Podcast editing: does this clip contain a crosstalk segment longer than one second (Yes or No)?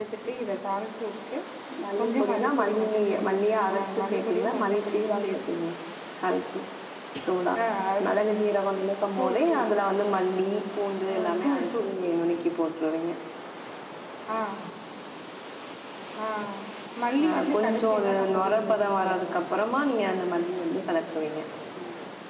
Yes